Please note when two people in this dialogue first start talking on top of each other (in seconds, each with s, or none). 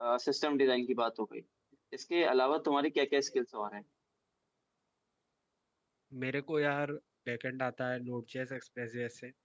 none